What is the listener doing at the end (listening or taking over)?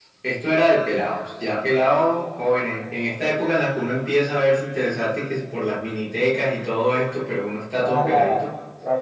taking over